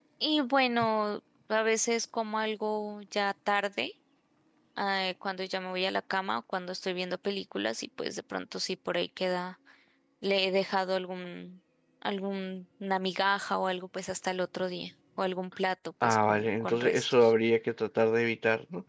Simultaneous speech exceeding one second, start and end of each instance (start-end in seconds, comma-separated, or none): 16.0-17.3